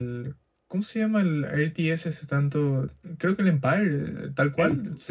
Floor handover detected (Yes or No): Yes